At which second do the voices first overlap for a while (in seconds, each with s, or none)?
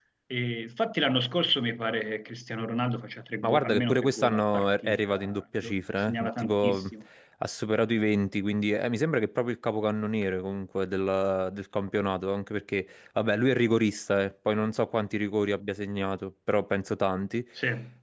3.4 s